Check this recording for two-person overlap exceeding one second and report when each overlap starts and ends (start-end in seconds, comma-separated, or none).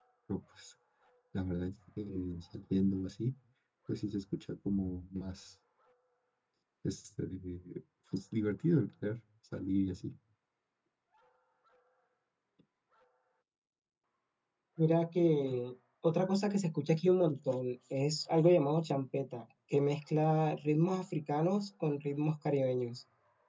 none